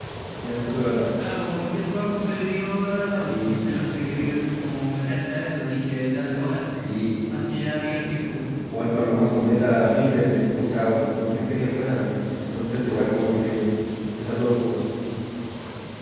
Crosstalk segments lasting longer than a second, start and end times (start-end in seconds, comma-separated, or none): none